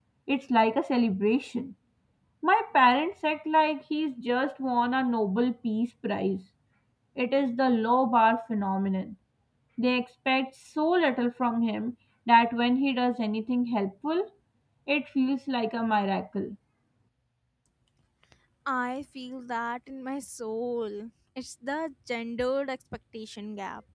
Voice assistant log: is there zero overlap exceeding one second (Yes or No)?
Yes